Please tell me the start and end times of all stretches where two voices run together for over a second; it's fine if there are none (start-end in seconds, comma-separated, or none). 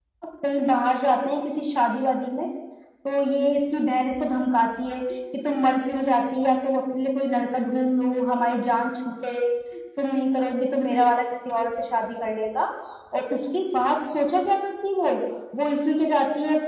none